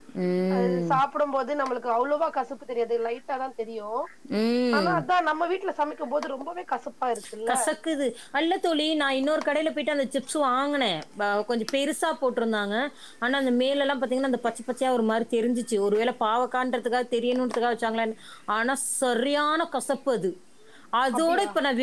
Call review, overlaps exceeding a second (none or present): none